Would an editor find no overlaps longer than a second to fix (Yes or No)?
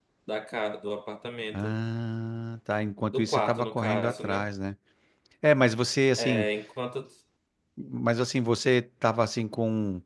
No